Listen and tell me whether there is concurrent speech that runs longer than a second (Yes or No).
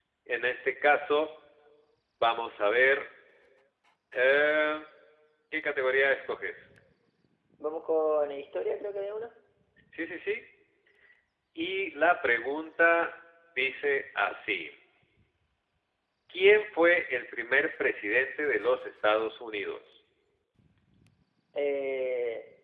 No